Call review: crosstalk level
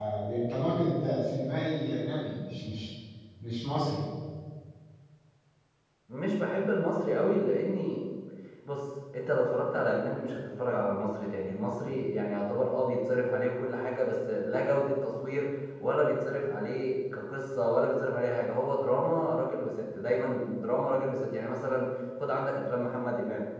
none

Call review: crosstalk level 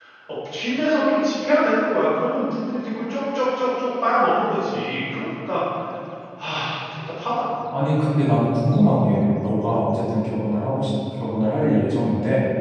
none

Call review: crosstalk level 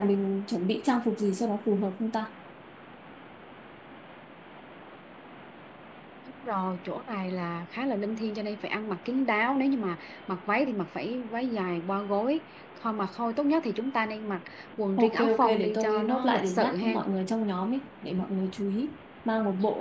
present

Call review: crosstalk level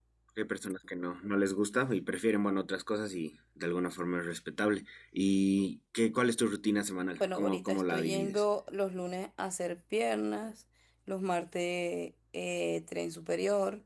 present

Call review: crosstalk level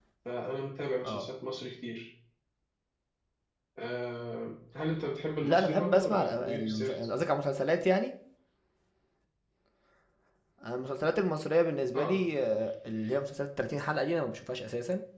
present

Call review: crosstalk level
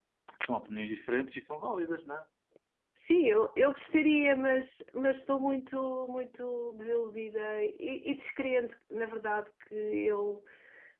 none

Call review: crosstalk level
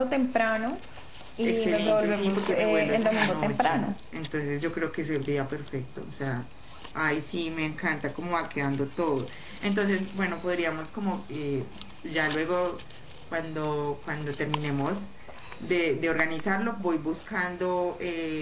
present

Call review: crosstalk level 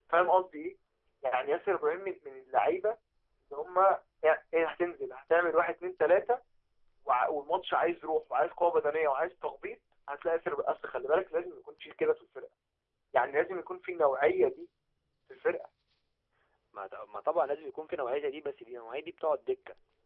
none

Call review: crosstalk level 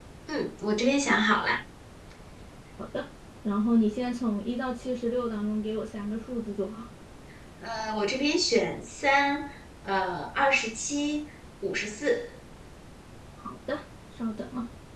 none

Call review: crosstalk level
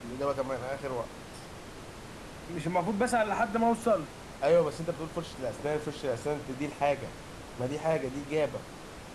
none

